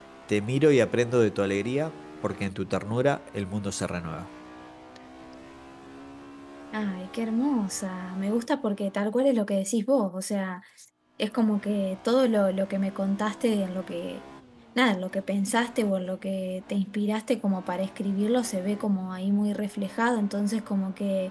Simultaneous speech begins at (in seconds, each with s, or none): none